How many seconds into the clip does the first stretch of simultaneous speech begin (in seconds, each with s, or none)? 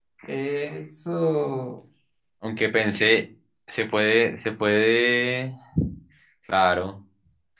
none